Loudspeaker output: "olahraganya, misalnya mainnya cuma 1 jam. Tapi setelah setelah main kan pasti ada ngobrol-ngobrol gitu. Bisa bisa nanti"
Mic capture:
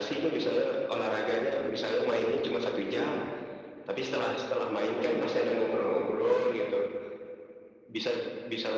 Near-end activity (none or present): none